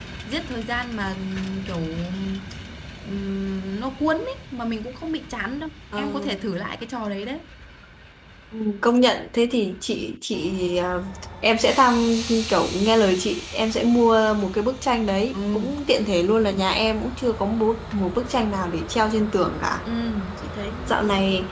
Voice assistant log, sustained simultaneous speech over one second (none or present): none